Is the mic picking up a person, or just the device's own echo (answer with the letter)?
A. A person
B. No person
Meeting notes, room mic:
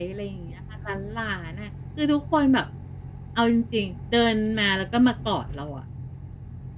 A